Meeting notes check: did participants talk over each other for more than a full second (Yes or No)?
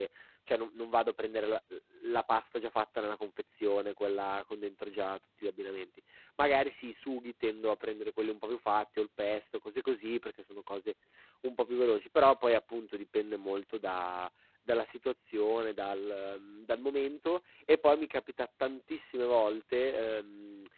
No